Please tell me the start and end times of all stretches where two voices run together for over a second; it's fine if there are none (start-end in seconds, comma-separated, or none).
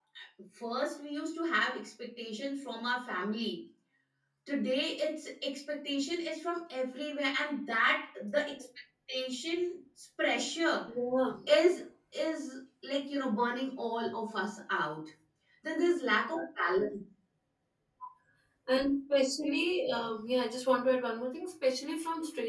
none